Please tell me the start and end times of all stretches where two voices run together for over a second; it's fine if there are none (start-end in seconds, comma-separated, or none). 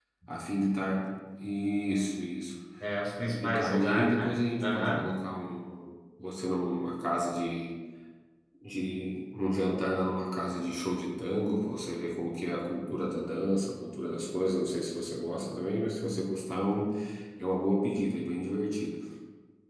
3.3-5.0